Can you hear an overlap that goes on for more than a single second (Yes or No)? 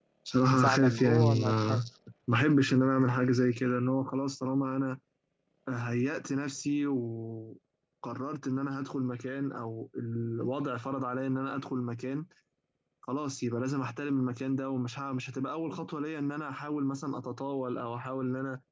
Yes